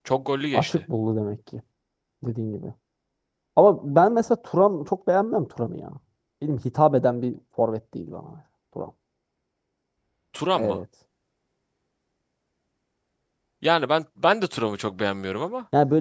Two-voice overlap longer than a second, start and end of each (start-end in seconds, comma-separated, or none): none